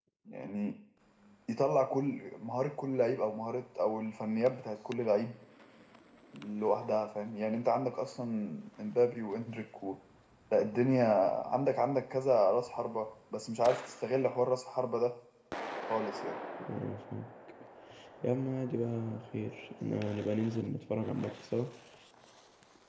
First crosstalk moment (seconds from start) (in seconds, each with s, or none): none